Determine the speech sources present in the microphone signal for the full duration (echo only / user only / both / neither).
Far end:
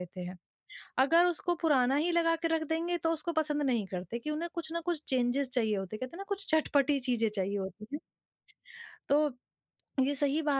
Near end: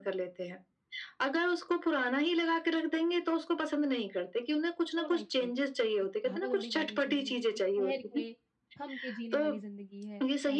both